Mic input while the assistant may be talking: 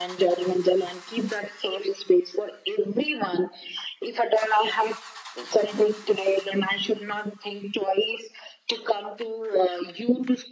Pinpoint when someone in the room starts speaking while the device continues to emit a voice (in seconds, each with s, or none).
none